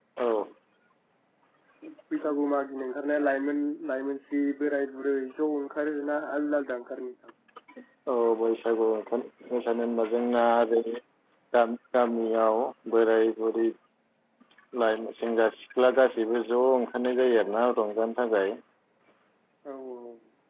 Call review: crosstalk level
none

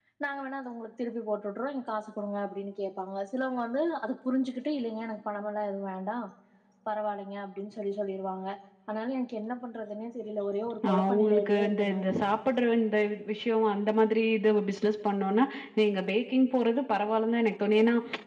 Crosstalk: present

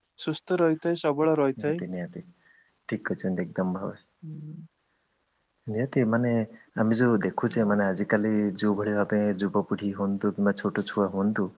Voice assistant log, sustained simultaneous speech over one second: none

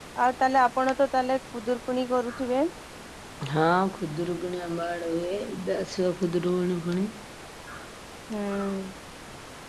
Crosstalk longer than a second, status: none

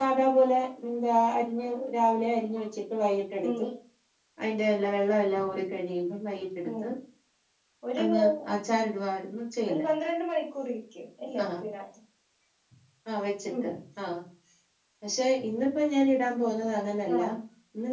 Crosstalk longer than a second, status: none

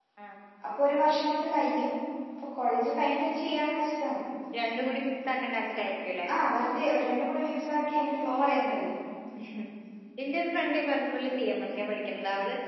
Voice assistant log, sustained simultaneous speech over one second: none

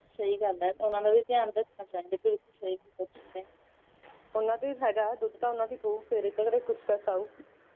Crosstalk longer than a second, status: none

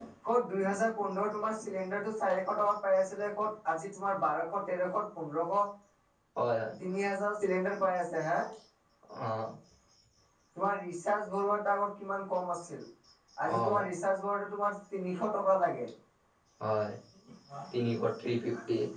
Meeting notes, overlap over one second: none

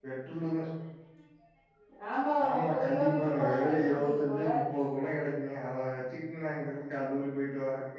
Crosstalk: present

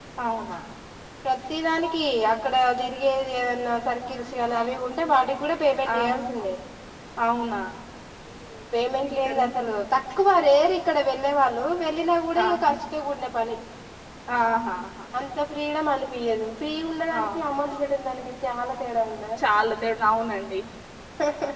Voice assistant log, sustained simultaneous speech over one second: none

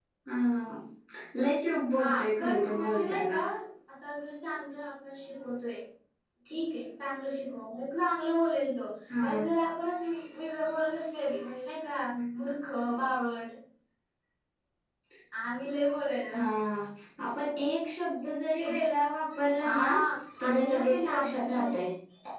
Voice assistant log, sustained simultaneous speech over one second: present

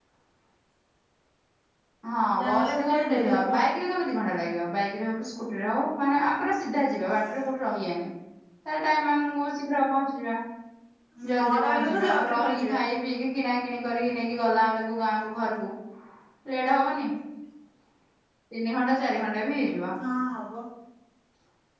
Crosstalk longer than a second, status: present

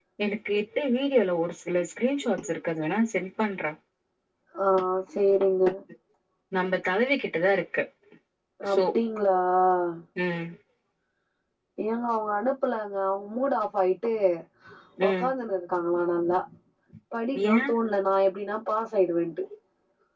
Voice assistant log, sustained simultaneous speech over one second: none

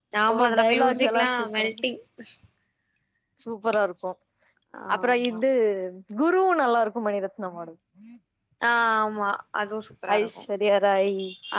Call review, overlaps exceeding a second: present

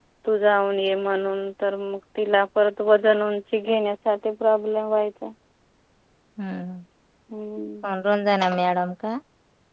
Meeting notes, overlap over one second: none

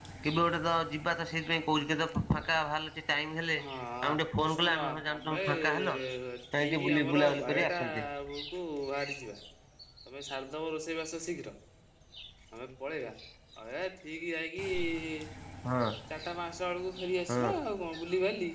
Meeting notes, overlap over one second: present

